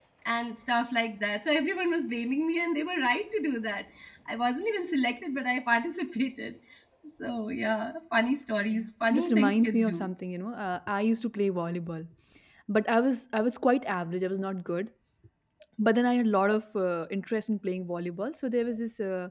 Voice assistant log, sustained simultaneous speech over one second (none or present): present